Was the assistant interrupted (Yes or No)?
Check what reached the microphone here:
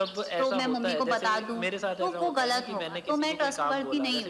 No